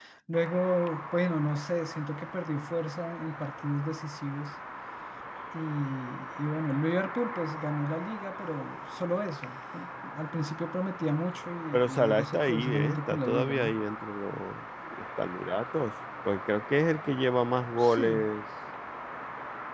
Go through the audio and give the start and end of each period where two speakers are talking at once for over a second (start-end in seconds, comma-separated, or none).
11.7-13.7